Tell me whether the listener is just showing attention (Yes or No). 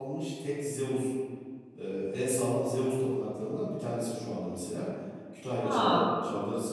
Yes